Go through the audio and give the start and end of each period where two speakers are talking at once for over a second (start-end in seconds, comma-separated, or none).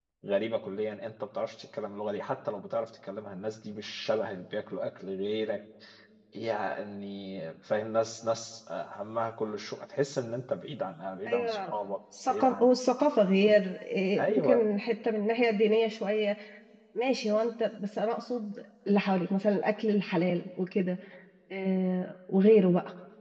none